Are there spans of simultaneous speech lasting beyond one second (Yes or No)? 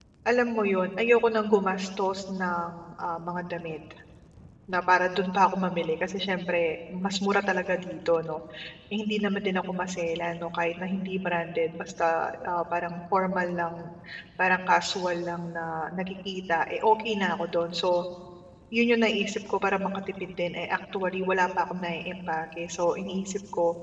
No